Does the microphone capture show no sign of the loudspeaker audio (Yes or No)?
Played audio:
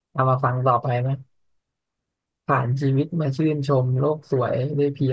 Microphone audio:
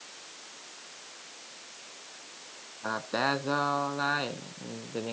Yes